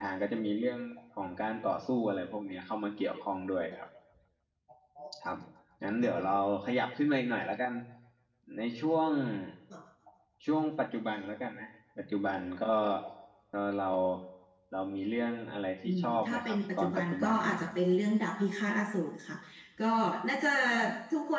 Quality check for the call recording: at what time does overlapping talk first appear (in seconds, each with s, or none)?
15.8 s